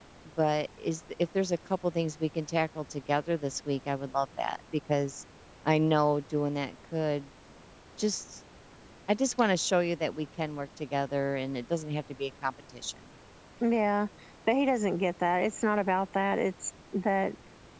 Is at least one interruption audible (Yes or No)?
No